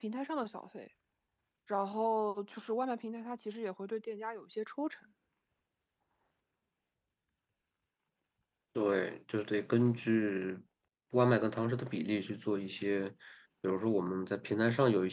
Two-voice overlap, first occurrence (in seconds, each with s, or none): none